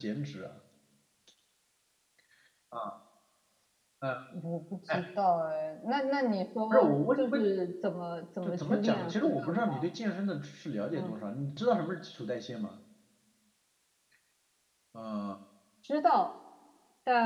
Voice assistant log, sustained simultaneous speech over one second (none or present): present